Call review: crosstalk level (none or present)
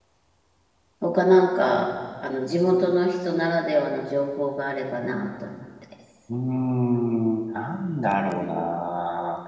none